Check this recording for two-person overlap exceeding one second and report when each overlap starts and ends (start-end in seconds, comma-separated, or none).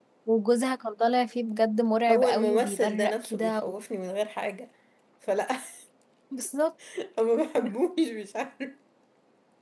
2.1-3.7